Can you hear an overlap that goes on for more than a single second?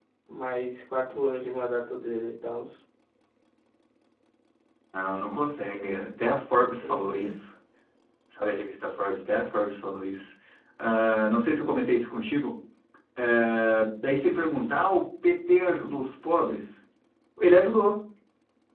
No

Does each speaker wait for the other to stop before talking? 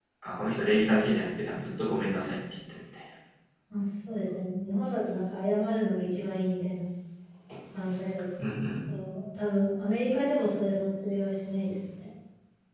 Yes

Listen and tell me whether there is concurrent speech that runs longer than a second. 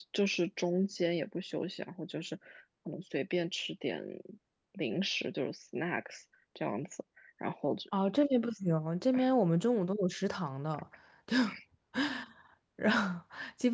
No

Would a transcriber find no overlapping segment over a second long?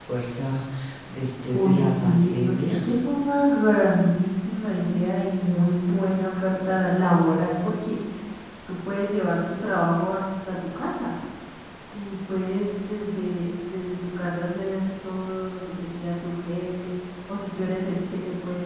No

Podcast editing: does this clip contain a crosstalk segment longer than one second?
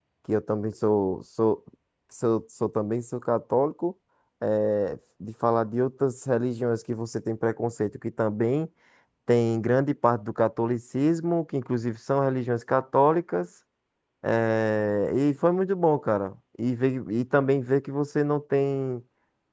No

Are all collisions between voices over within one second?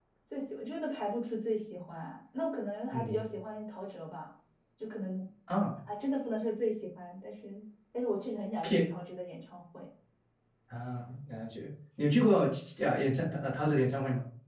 Yes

